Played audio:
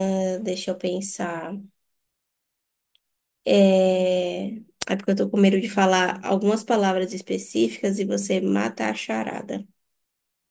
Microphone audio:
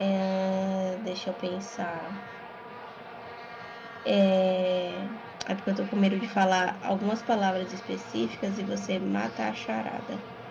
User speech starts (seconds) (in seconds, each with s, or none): none